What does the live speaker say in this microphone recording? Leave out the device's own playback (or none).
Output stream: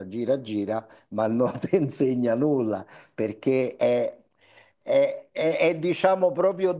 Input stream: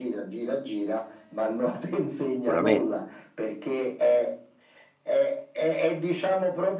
Sicuramente,